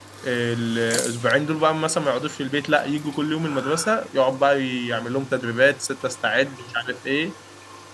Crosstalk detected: No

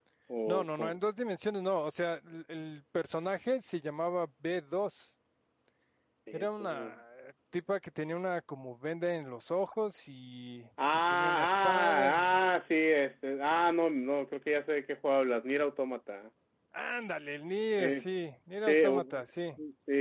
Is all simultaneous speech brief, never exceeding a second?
No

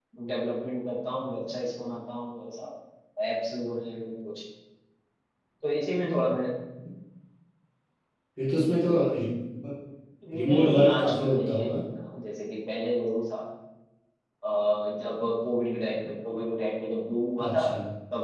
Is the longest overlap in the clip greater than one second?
Yes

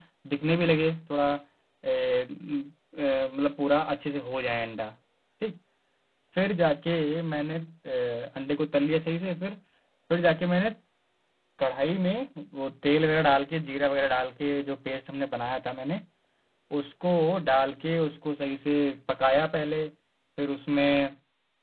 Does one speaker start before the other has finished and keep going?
No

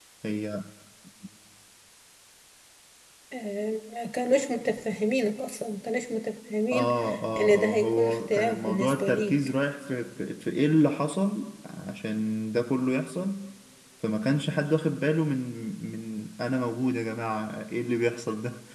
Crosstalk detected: Yes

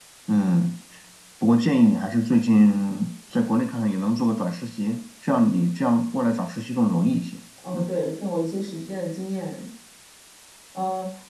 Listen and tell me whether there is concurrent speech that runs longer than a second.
No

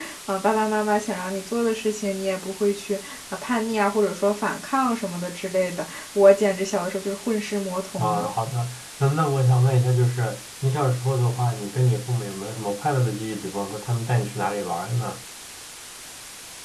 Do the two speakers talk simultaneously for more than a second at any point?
No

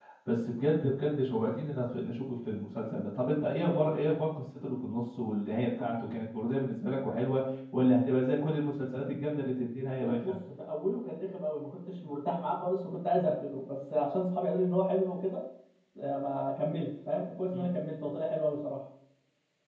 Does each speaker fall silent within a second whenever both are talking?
Yes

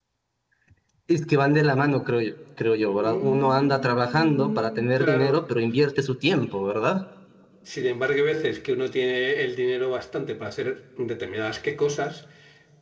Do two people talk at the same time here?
Yes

